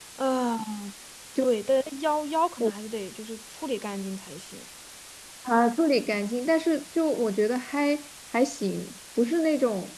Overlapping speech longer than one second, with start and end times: none

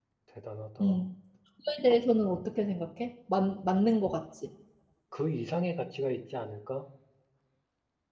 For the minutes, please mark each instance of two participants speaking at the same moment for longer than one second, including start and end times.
none

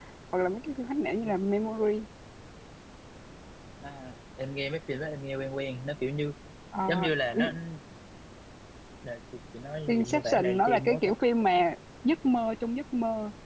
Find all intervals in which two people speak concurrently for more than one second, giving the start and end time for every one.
9.9-11.1

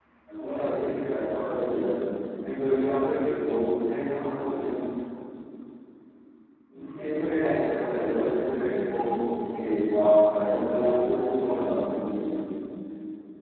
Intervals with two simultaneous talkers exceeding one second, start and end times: 10.3-11.6

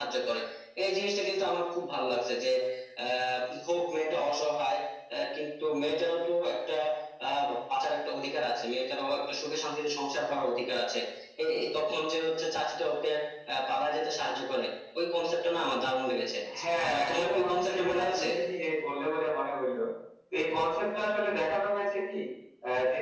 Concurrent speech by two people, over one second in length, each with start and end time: 16.9-18.2

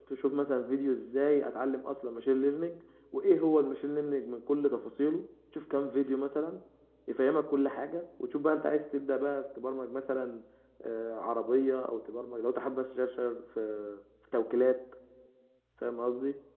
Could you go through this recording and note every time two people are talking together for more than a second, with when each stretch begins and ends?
none

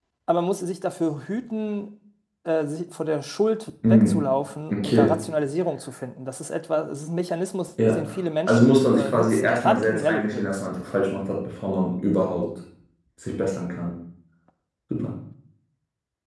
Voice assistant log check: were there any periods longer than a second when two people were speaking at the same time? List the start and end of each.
8.4-10.6

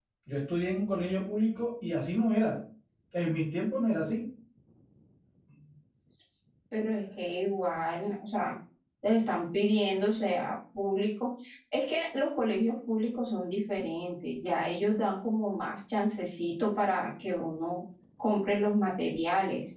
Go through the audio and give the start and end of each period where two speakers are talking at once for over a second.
none

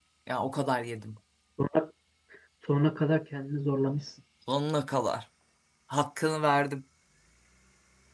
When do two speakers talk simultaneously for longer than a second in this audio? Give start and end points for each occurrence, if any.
none

